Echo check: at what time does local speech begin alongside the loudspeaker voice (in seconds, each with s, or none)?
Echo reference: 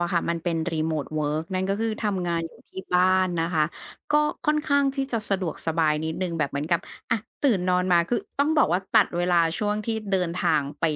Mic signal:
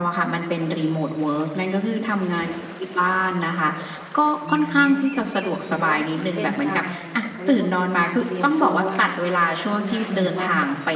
4.4 s